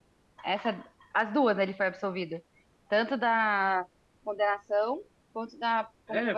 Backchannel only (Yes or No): No